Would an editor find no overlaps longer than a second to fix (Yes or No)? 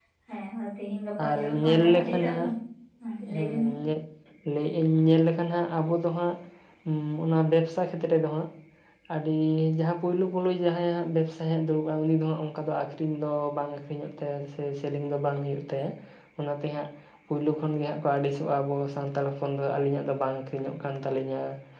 No